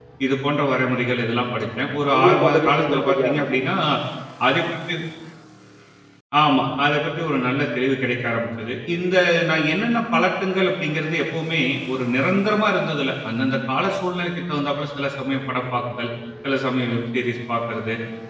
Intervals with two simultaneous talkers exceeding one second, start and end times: 2.2-3.6

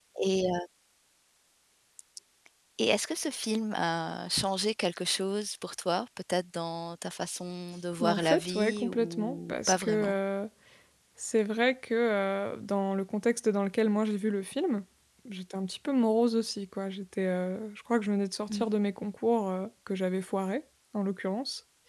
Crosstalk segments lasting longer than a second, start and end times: 8.0-10.2

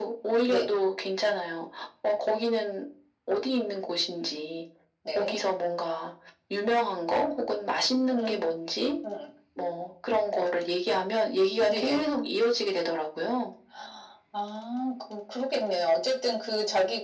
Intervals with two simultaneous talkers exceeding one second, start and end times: none

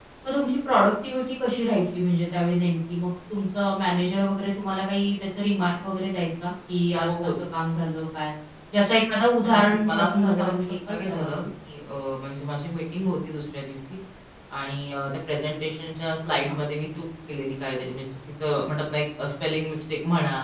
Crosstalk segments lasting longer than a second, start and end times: 9.6-11.3

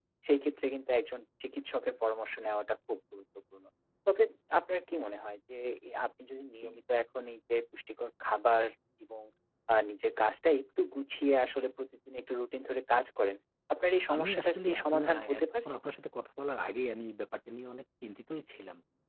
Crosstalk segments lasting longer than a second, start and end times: 14.1-15.7

